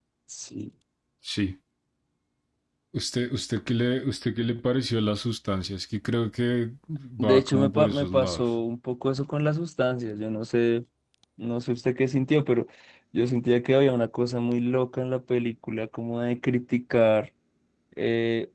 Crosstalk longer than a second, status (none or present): present